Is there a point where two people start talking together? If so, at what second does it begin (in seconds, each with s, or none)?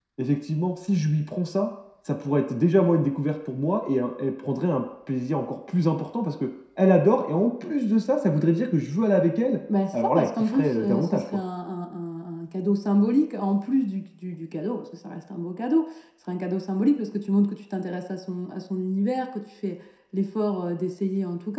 9.7 s